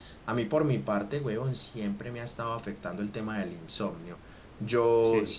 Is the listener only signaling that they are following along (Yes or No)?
Yes